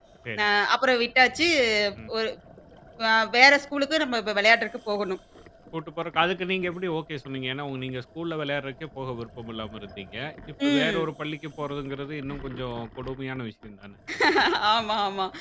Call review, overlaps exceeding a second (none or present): none